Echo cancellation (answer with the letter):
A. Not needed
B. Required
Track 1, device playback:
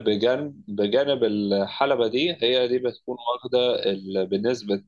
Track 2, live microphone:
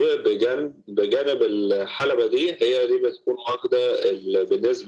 B